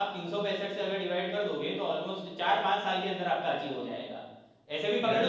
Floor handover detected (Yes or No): No